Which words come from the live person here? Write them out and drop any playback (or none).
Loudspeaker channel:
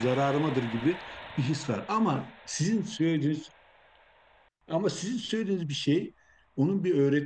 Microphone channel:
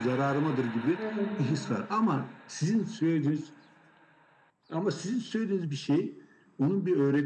Evet.